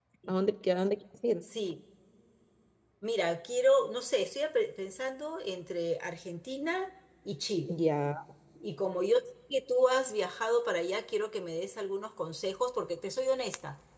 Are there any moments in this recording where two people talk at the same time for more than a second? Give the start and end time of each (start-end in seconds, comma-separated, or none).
none